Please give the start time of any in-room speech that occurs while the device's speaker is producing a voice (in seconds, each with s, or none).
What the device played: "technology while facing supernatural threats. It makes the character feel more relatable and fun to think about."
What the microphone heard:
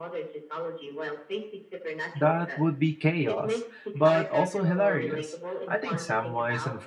2.1 s